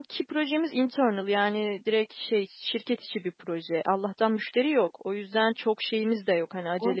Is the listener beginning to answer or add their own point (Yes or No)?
Yes